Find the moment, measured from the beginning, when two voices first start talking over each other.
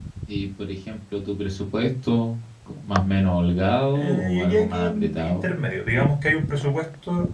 3.9 s

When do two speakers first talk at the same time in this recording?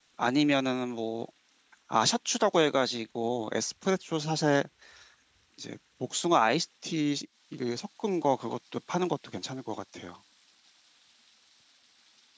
none

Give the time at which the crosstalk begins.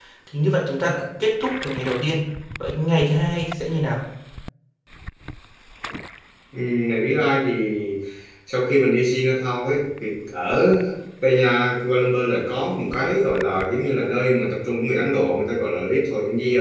none

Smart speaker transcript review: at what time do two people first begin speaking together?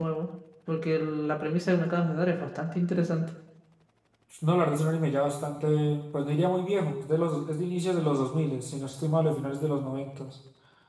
none

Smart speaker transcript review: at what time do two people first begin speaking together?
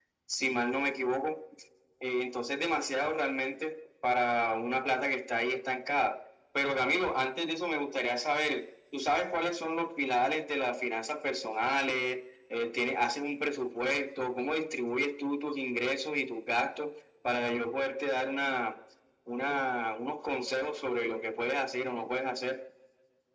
none

